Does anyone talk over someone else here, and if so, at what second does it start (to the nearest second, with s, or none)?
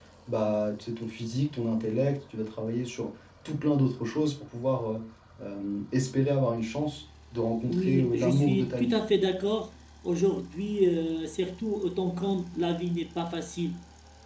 8 s